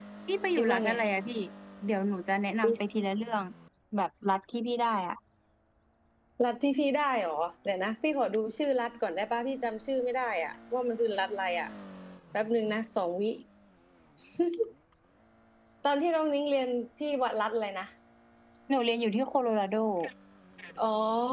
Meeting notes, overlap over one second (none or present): none